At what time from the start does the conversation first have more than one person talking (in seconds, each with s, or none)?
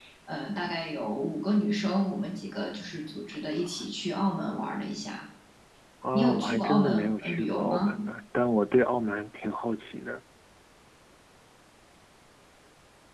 6.1 s